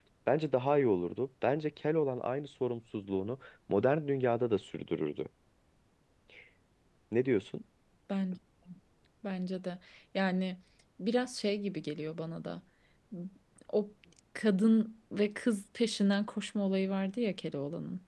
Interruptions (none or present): none